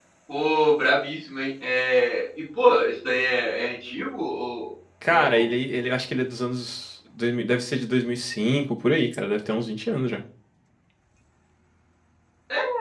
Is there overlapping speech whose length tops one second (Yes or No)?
No